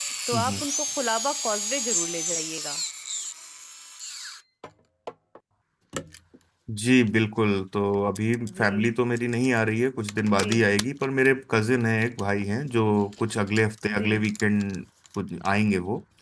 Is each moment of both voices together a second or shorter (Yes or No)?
Yes